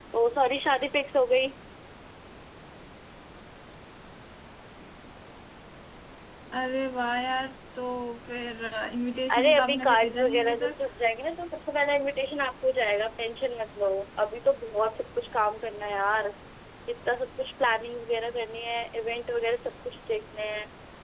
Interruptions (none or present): present